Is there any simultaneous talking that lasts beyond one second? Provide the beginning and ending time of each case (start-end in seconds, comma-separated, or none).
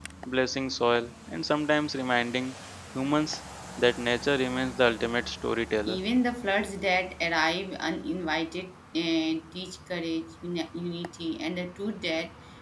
none